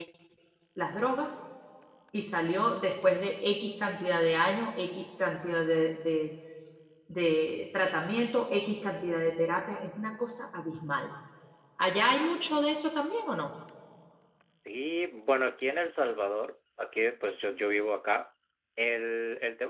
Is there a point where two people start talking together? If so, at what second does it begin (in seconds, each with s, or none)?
none